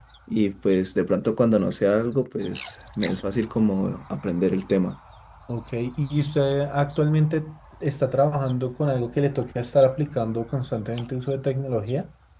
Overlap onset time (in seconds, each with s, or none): none